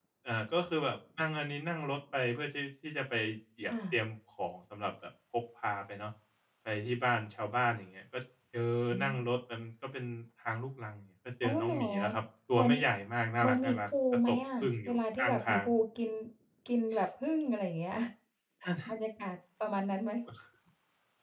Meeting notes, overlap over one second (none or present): present